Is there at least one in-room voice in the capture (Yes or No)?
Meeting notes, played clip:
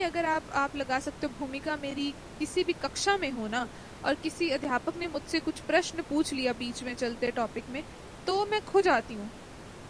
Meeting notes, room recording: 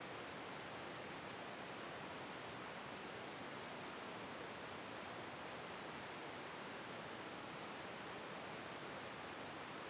No